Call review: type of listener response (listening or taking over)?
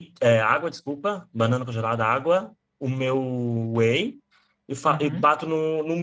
listening